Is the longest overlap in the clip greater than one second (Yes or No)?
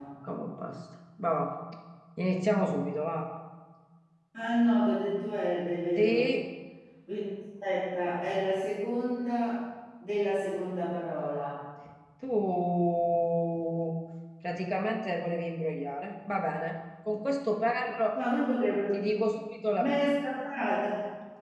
No